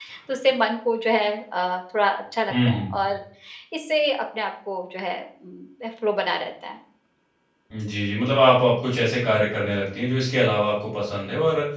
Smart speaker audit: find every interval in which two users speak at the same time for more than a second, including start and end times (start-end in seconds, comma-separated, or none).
none